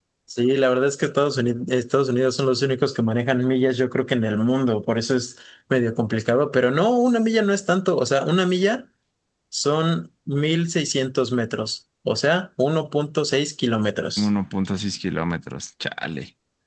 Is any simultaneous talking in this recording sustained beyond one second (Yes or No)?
No